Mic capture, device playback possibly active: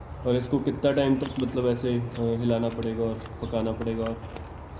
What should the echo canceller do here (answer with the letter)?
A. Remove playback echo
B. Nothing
B